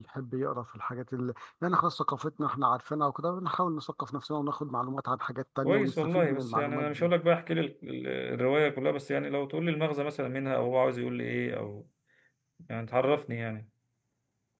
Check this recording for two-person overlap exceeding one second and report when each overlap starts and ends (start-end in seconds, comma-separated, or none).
5.6-7.1